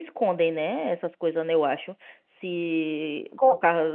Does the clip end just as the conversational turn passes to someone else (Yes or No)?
Yes